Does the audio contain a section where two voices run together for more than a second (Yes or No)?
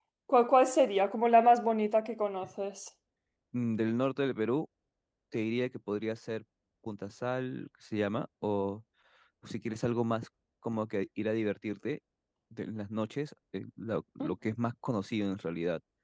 No